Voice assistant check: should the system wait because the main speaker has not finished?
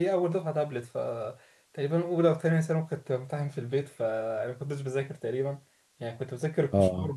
Yes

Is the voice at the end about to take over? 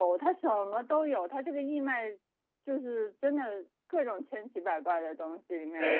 Yes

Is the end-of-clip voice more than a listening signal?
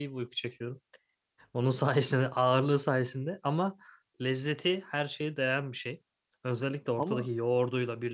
No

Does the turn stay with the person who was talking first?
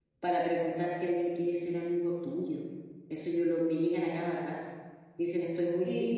Yes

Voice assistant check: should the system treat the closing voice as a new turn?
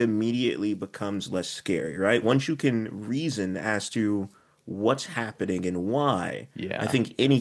No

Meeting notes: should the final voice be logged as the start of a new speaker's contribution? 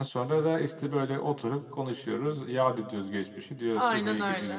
Yes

